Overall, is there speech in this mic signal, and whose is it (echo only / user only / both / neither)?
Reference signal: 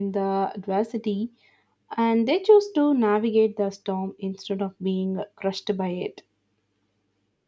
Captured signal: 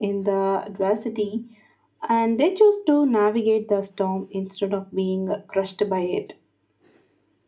echo only